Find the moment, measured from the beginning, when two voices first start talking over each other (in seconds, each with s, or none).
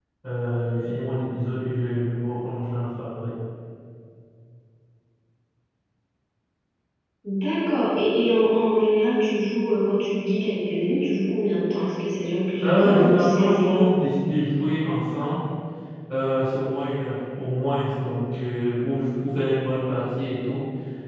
12.6 s